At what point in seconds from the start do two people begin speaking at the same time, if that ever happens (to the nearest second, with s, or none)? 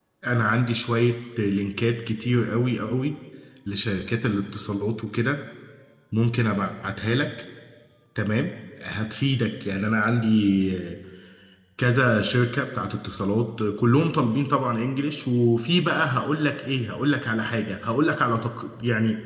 none